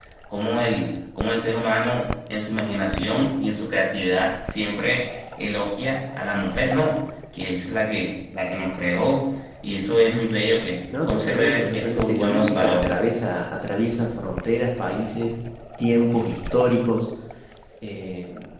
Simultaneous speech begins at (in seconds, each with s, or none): 10.9 s